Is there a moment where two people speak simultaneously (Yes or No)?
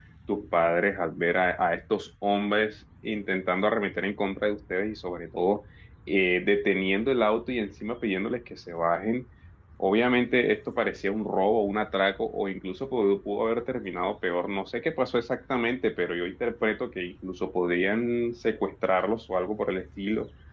No